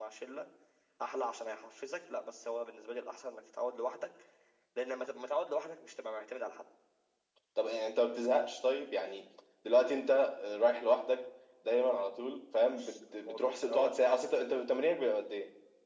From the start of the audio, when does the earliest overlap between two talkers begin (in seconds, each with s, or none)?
12.7 s